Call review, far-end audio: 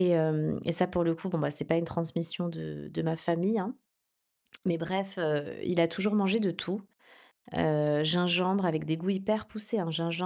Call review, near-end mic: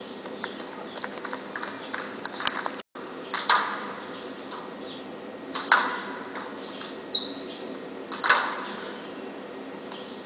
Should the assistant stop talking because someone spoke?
No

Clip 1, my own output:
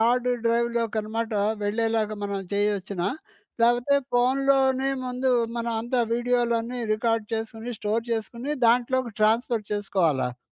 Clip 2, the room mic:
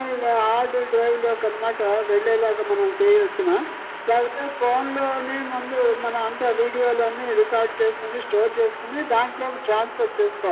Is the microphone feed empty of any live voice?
Yes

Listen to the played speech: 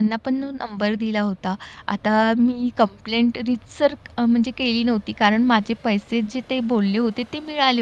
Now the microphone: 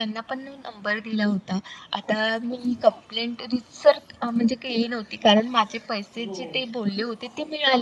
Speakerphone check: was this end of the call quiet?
No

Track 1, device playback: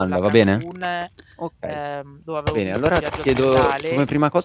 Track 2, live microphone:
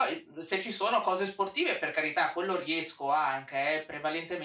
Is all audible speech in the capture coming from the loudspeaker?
No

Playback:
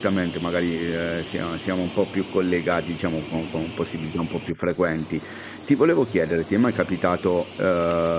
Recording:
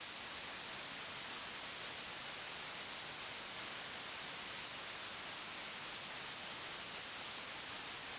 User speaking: No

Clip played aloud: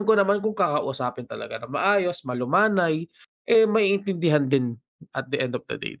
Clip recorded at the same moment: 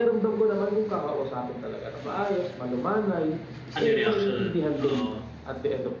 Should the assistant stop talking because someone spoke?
Yes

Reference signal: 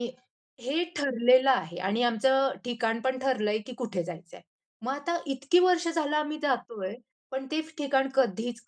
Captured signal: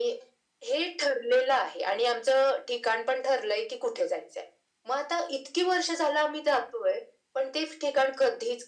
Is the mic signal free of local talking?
Yes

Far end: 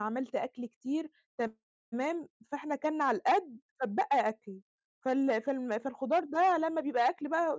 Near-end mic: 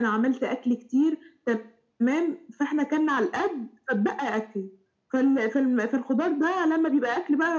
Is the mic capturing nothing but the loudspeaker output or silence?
Yes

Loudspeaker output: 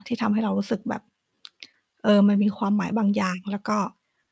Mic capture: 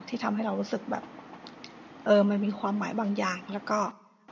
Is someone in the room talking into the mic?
No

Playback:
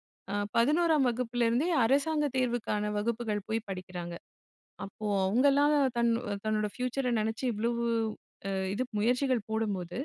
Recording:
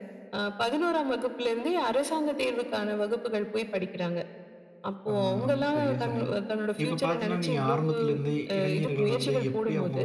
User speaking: Yes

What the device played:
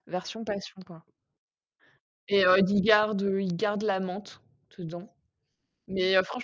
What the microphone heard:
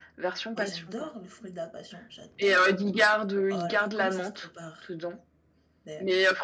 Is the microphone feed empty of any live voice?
No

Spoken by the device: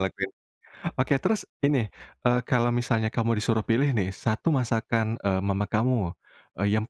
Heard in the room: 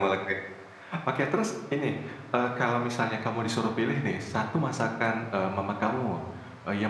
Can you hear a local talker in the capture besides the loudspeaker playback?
No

